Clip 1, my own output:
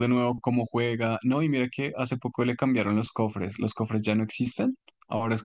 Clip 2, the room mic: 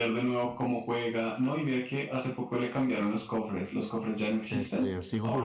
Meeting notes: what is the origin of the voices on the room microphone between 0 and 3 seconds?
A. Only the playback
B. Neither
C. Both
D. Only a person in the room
A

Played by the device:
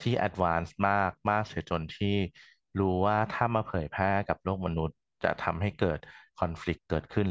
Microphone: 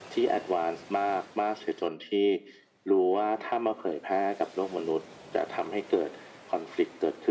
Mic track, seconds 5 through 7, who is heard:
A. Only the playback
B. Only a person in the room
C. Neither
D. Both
A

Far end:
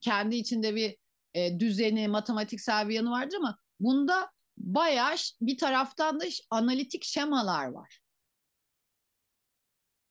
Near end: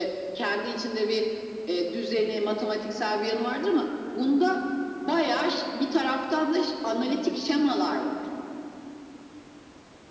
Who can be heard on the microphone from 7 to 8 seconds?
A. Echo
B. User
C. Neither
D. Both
D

